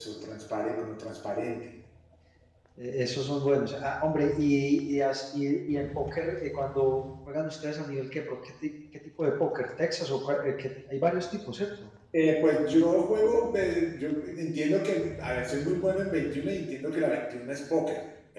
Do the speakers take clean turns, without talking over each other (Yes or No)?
Yes